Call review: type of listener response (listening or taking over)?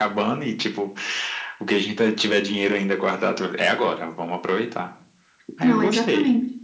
taking over